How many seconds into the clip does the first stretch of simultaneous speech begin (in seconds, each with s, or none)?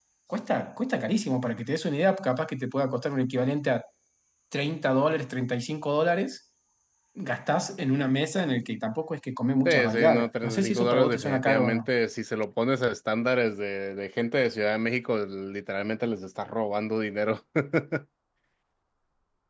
9.7 s